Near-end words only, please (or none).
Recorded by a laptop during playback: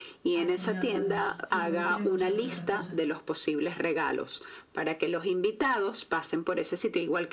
Ay, genial, vale. Sí, porque tú tienes mucho arte para estas cosas.